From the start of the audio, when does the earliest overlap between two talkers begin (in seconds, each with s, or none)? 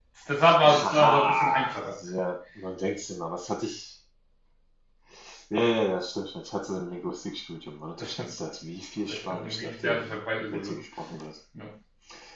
0.6 s